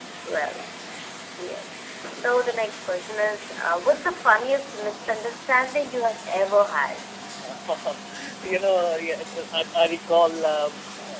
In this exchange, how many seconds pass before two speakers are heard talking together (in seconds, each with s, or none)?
none